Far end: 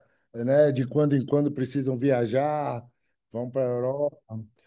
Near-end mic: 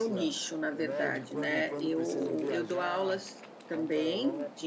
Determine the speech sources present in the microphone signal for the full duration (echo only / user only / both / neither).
both